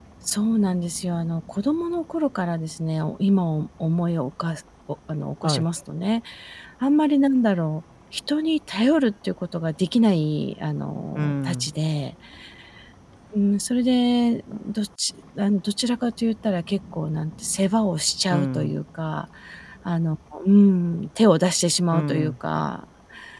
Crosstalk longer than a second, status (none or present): none